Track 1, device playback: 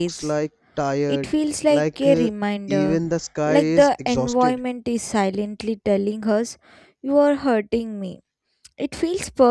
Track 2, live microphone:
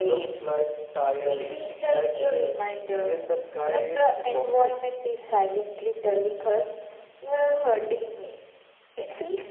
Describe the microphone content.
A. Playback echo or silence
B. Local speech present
A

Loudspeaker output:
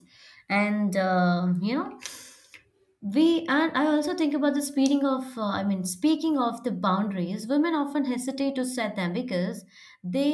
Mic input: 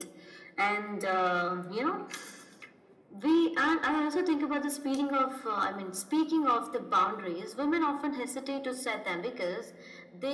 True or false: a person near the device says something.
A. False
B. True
A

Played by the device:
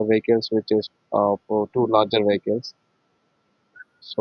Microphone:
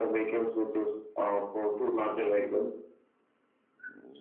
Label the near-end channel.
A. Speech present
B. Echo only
B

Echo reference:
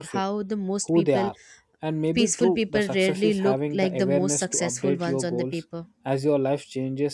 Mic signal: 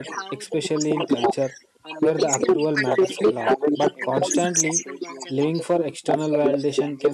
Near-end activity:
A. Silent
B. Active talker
B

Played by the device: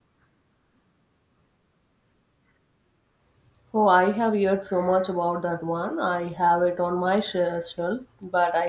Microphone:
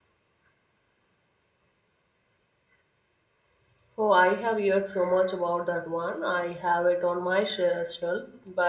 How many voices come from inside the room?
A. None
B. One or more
A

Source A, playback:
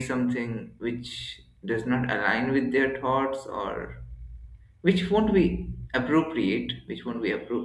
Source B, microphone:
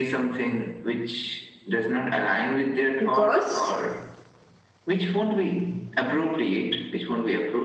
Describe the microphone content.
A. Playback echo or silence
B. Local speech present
B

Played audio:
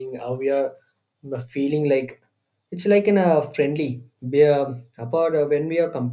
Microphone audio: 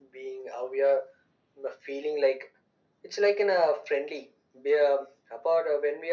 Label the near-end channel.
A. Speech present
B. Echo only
B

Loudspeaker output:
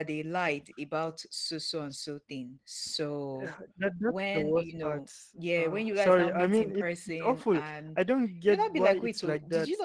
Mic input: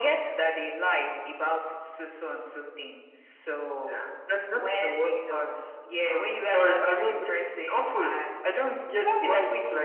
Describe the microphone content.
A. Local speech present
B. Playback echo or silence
B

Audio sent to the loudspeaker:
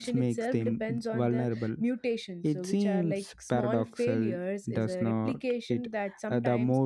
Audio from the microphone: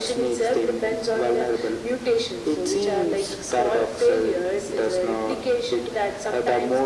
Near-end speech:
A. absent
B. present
A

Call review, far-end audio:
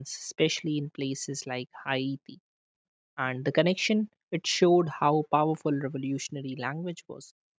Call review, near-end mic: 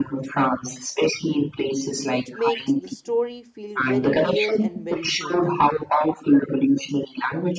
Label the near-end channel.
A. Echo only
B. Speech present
B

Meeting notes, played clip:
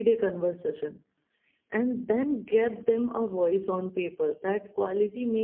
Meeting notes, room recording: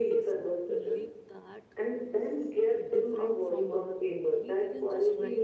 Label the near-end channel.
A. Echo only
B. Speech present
B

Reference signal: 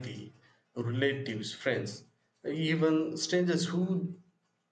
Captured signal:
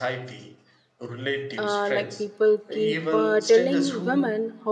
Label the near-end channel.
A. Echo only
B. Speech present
B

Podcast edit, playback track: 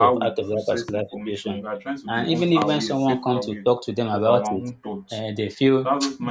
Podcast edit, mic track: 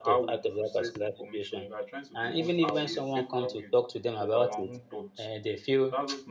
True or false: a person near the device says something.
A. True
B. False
B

